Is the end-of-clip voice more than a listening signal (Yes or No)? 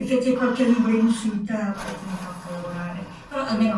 No